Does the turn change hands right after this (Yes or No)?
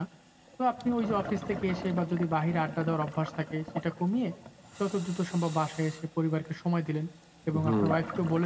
No